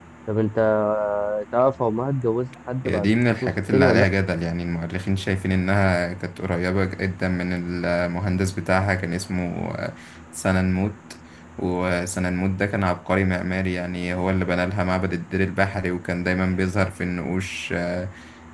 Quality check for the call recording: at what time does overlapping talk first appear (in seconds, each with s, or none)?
2.8 s